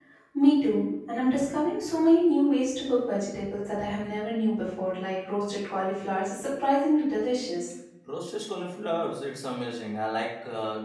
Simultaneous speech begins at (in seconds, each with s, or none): none